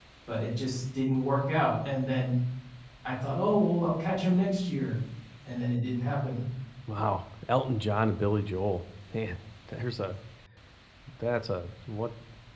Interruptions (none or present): none